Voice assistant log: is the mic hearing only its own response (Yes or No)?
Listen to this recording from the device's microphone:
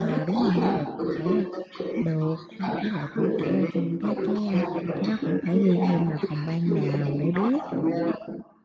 No